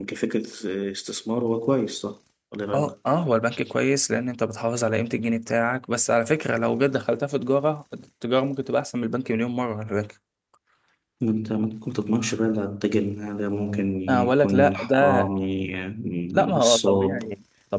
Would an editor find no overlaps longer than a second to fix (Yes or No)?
No